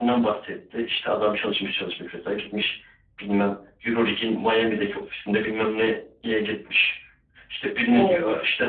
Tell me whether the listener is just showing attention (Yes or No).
Yes